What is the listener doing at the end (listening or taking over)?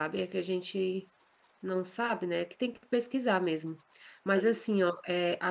listening